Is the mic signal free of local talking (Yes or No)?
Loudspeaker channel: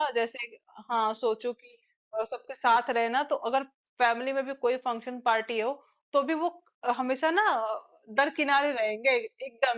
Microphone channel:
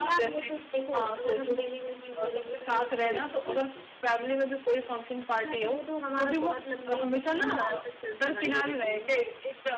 No